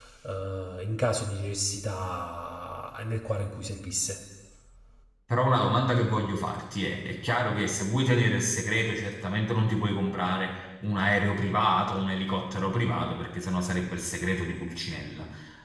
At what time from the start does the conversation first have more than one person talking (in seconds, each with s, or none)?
none